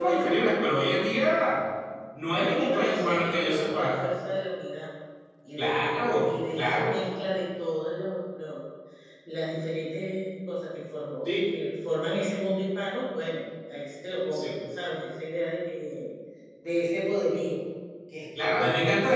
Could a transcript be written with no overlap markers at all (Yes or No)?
No